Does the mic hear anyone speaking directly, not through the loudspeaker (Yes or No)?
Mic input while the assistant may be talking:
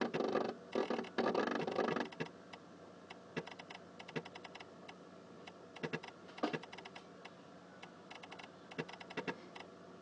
No